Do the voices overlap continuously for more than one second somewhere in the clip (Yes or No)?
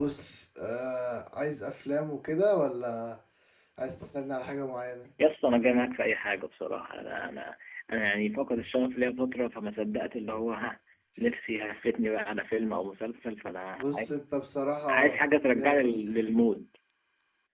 No